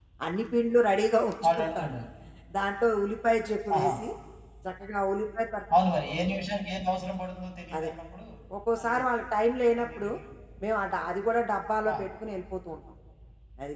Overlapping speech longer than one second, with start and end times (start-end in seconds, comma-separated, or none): none